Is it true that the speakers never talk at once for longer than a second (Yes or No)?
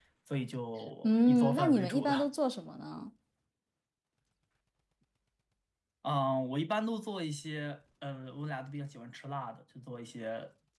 No